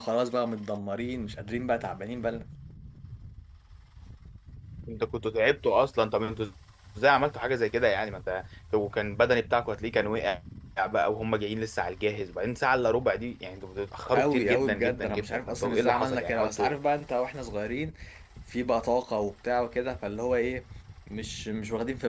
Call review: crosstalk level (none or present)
present